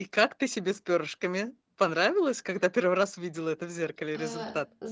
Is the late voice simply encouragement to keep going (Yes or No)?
No